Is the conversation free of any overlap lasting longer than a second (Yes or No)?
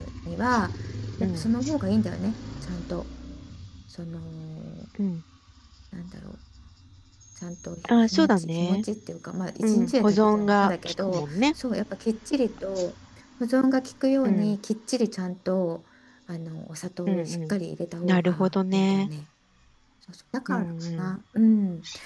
No